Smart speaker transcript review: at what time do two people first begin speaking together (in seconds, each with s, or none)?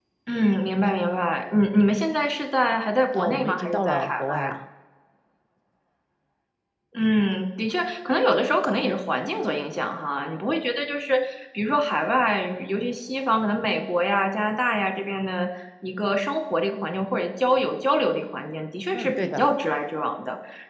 3.1 s